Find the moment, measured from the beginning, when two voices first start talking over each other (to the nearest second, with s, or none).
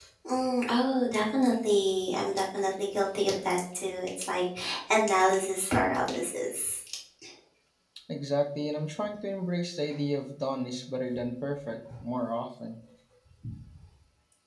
none